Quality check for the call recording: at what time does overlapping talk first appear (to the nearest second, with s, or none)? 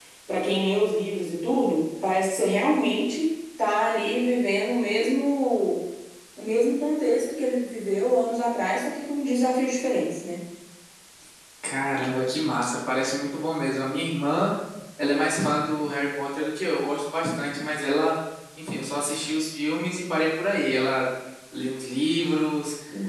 none